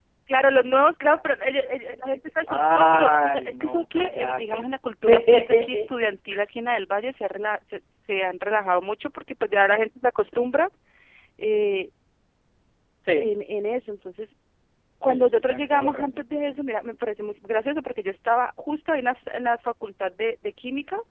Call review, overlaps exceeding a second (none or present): present